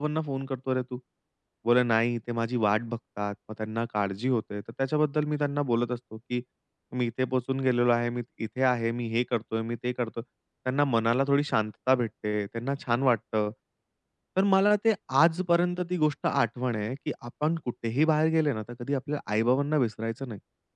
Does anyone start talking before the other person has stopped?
No

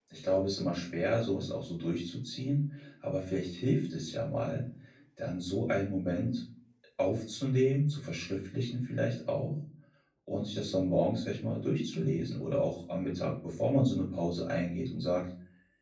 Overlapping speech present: No

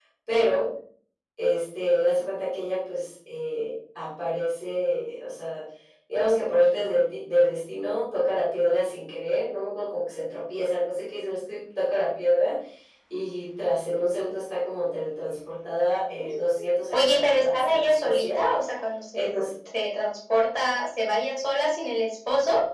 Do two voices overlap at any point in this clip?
Yes, from 16.2 s

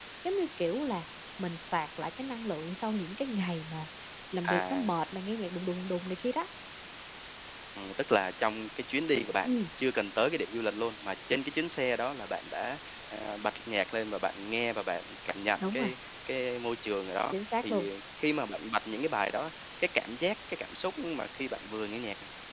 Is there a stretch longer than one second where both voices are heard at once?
No

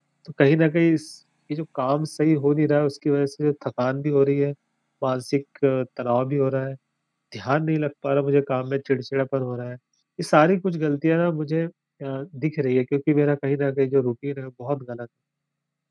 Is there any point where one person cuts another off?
No

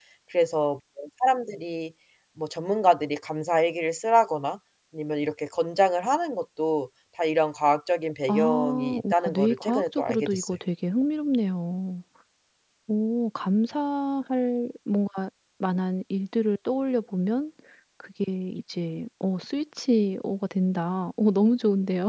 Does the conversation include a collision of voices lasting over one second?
Yes, from 8.2 s

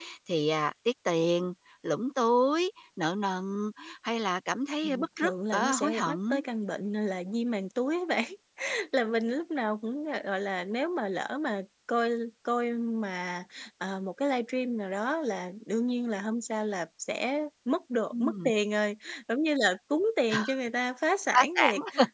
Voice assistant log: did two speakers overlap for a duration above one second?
Yes, from 4.8 s

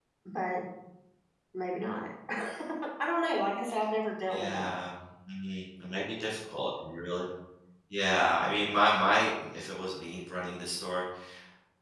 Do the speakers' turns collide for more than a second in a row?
No

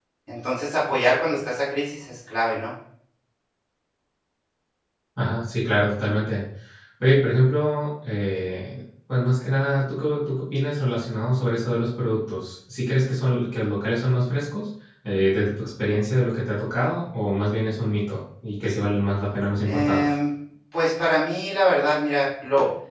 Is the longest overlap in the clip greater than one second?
No

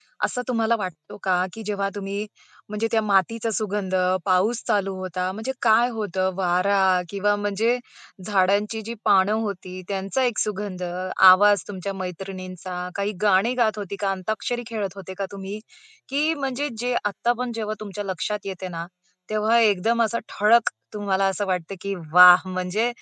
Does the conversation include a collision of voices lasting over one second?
No

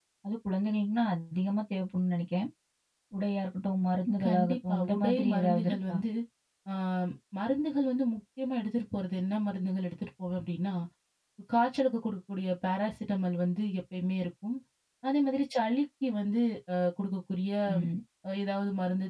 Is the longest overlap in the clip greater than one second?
Yes, from 4.2 s

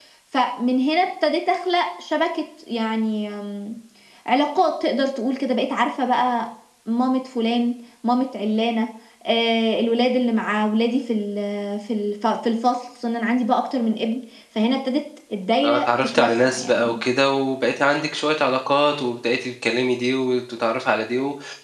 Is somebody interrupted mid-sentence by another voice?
Yes, from 15.6 s

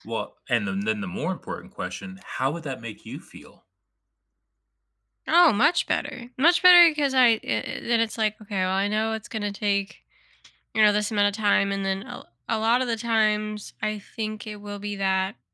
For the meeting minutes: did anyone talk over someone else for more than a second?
No

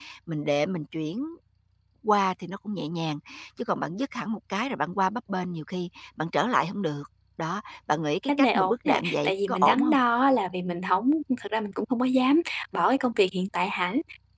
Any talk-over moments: Yes, from 8.3 s

